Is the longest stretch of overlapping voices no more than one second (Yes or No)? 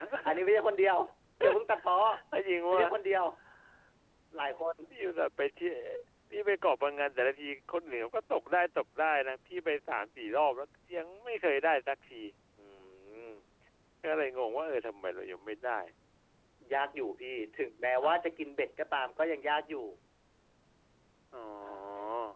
Yes